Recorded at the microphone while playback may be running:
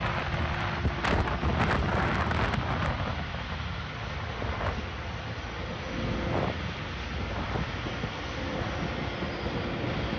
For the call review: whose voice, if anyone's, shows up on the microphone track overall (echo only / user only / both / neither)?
neither